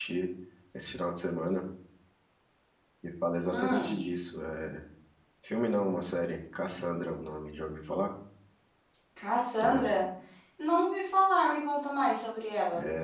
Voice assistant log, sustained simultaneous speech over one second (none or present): none